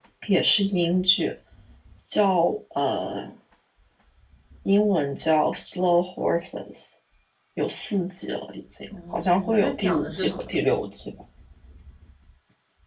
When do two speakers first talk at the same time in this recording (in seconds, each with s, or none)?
8.9 s